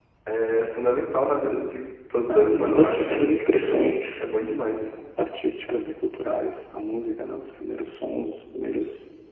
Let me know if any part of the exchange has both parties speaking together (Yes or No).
Yes